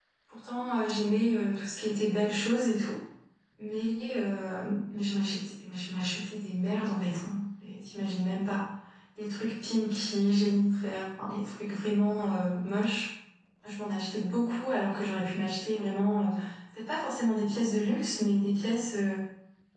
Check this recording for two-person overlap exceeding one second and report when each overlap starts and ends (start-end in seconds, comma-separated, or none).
none